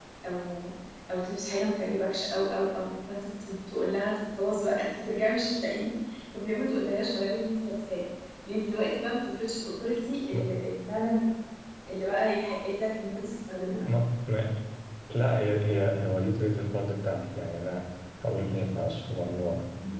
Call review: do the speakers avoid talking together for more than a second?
Yes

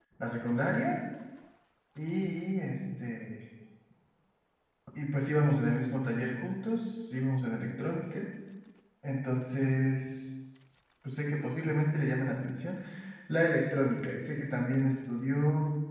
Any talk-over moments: No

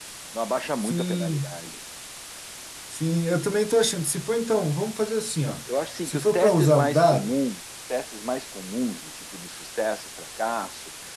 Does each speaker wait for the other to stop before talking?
No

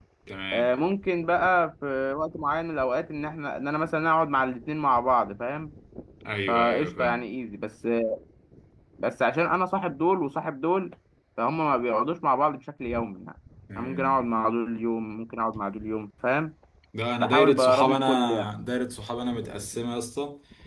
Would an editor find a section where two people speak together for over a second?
Yes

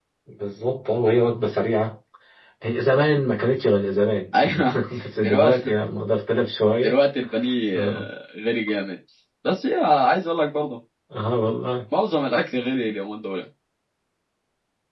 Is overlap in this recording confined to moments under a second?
Yes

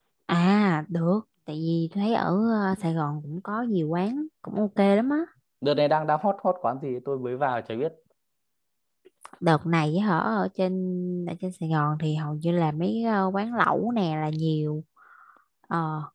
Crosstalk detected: No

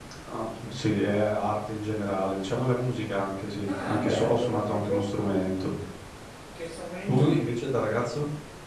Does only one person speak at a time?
No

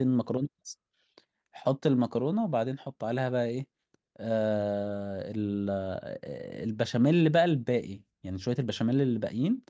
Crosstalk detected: No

